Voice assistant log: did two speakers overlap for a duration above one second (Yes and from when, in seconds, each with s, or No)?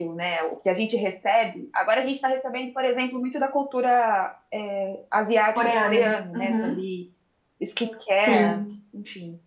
Yes, from 5.6 s